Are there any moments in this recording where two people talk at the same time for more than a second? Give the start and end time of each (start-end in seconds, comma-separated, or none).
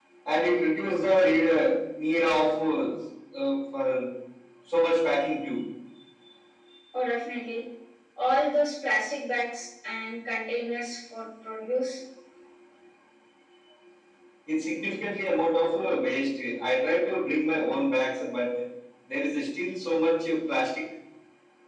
none